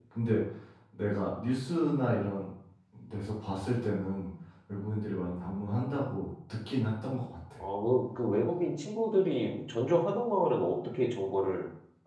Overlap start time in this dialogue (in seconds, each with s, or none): none